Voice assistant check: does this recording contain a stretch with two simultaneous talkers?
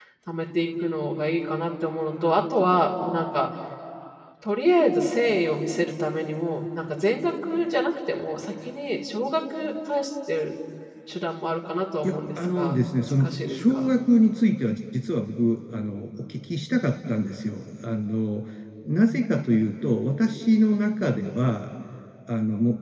Yes, from 12.0 s

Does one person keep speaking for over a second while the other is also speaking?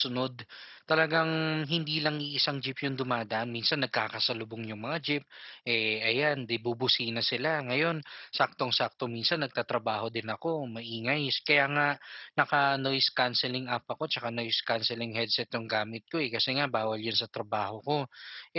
No

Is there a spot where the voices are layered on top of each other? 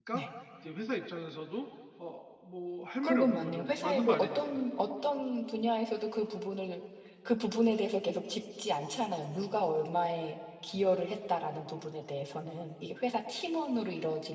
Yes, from 3.0 s

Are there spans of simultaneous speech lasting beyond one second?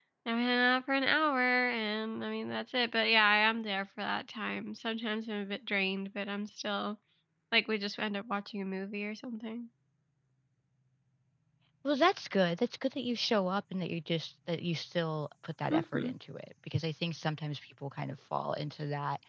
No

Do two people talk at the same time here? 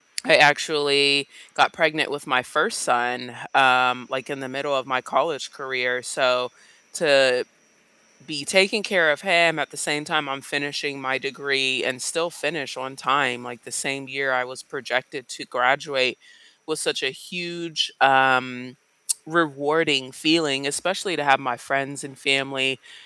No

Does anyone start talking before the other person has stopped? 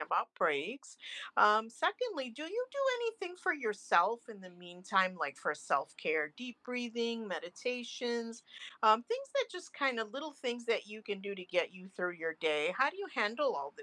No

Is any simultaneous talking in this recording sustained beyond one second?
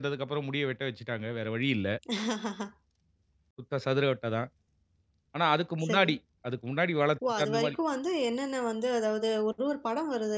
No

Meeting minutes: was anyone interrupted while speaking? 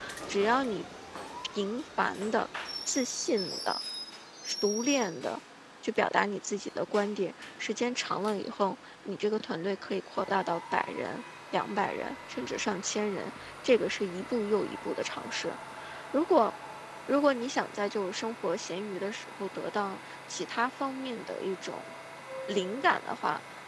No

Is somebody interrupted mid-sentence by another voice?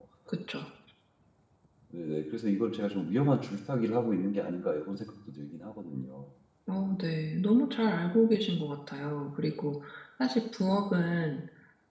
No

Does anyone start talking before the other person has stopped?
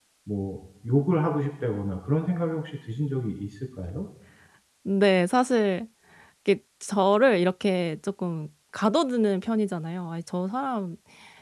No

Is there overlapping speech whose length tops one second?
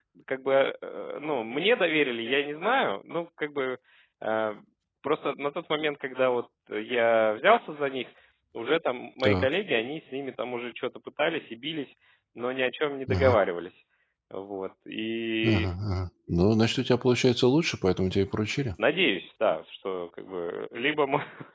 No

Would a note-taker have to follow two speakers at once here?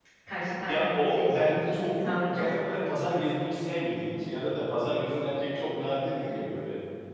Yes, from 0.7 s

